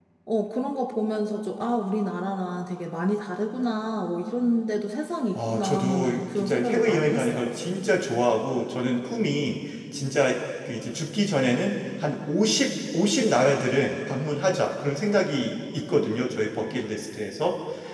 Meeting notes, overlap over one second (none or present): present